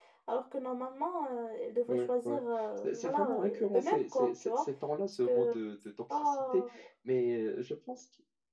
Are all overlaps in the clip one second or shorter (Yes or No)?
No